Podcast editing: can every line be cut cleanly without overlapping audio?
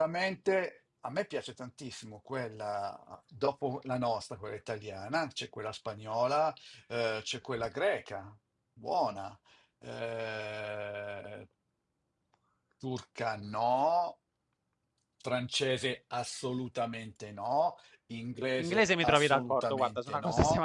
No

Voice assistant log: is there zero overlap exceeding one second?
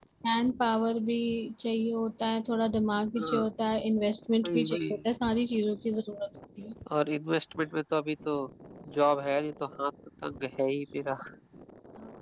Yes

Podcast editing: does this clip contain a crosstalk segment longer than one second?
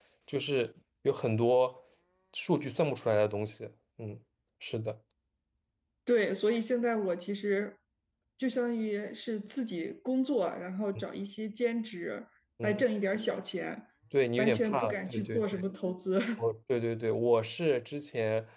Yes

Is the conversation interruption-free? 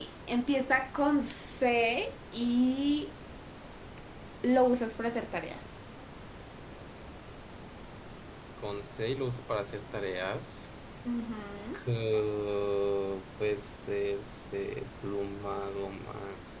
Yes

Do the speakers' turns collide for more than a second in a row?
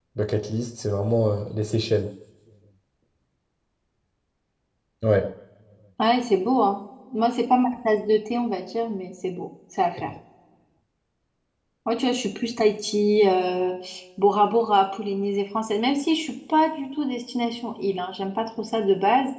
No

